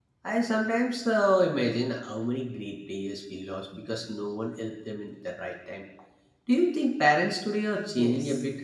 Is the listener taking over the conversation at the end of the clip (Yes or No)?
Yes